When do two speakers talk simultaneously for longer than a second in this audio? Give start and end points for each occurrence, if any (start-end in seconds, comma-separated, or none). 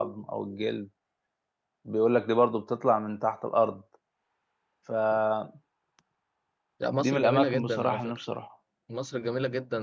7.0-8.2